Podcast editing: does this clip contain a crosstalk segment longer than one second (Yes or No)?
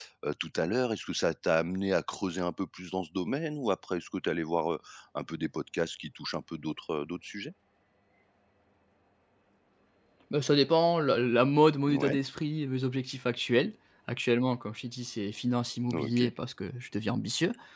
No